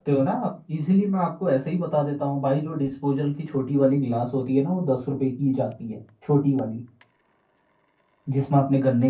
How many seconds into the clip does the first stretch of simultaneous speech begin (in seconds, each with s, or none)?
none